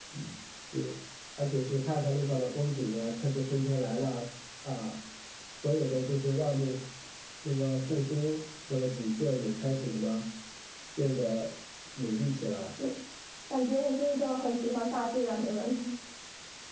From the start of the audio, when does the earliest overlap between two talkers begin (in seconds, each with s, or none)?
none